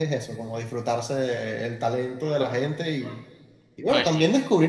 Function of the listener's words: listening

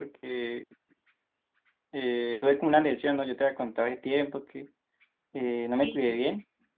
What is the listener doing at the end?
listening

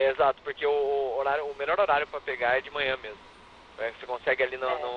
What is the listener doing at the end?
listening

